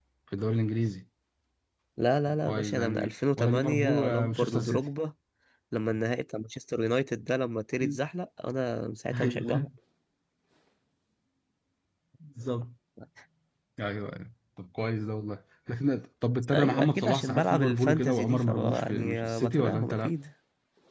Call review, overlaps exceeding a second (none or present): present